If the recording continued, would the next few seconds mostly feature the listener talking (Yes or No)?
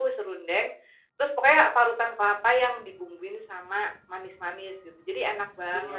Yes